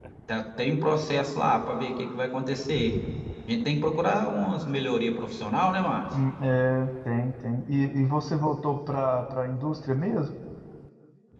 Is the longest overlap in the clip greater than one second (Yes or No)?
No